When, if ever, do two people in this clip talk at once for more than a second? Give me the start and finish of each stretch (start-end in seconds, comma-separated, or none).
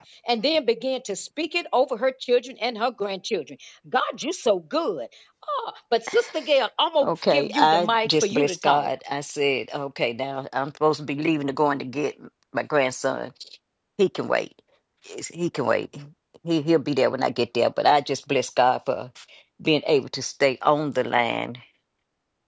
7.0-8.9